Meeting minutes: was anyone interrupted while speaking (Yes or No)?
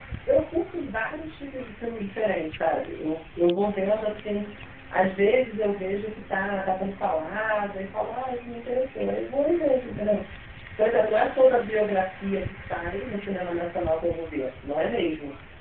No